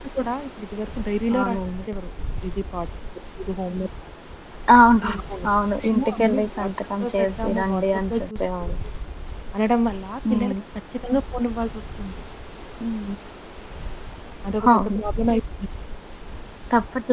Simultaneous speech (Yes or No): Yes